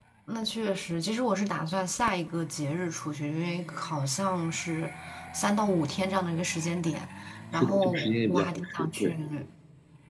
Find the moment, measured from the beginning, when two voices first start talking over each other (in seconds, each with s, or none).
7.5 s